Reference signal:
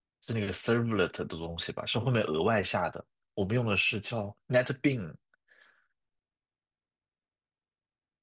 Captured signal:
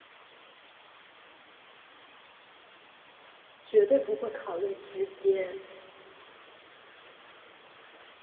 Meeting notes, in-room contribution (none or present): present